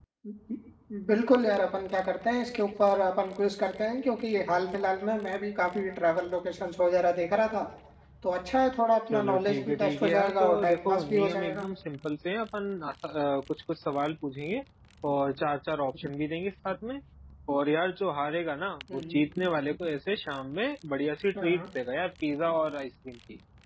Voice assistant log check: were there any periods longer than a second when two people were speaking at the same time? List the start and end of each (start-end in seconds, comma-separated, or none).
9.1-11.6